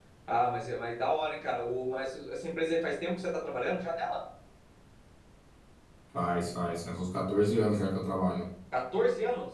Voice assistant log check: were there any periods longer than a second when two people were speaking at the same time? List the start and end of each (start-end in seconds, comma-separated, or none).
none